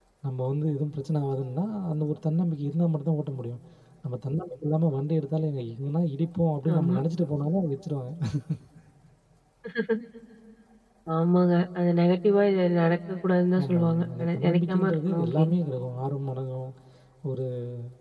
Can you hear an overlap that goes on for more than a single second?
Yes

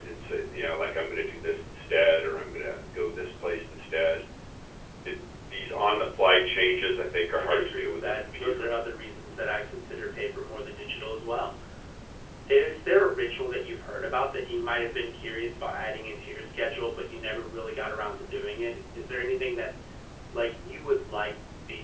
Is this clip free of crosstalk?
No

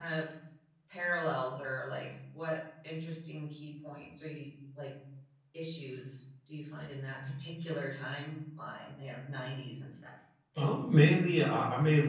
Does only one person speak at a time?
Yes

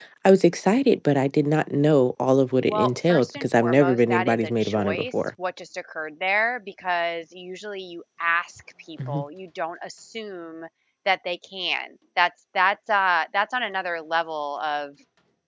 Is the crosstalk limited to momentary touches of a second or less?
No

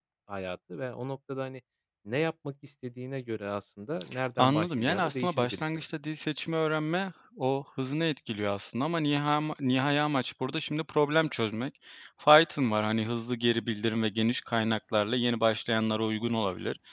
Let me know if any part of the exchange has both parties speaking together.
Yes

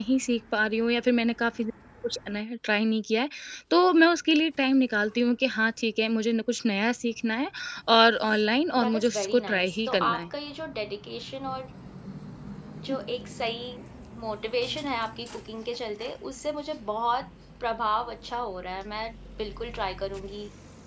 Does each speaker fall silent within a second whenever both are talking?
No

